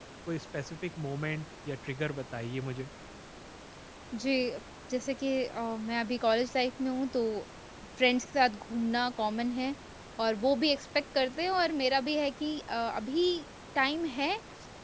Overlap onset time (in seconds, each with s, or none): none